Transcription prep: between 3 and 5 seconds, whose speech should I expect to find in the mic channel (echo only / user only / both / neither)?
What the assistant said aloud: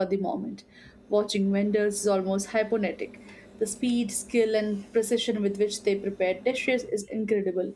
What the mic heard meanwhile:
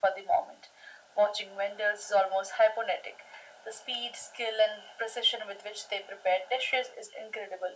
echo only